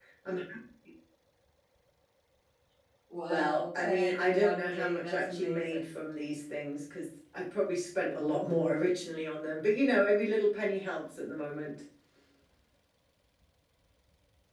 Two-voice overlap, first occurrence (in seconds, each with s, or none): 3.3 s